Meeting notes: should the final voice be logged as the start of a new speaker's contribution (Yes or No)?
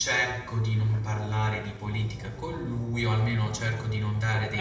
No